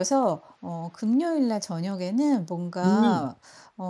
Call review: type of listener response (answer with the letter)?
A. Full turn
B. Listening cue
B